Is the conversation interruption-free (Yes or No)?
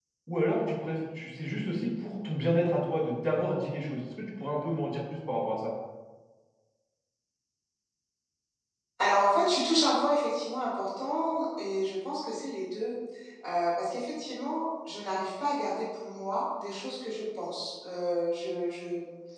Yes